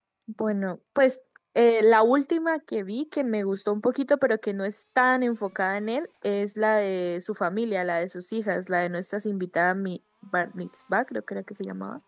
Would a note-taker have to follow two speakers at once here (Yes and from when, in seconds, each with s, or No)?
No